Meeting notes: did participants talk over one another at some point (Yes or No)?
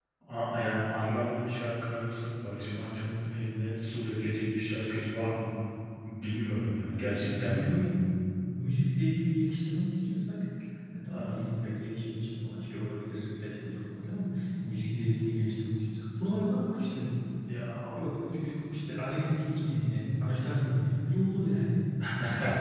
Yes